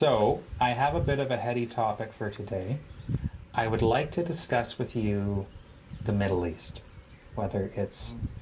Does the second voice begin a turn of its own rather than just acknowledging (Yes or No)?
No